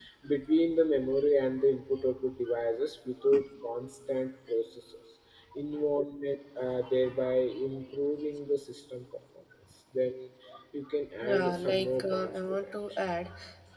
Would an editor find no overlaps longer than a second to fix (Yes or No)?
No